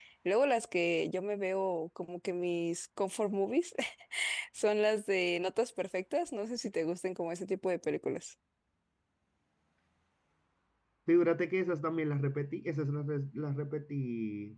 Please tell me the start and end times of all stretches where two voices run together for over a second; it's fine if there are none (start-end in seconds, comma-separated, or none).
none